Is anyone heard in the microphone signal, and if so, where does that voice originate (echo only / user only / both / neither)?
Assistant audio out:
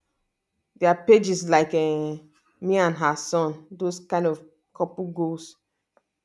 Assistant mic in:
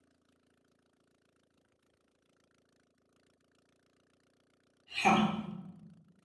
user only